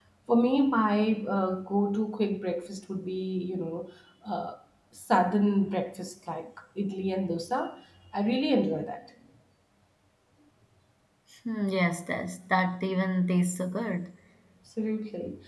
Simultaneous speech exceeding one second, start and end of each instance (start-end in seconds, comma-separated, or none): none